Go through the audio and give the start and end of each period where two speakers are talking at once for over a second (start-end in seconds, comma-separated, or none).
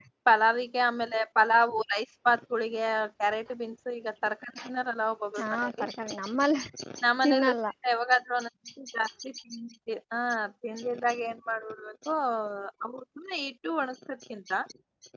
none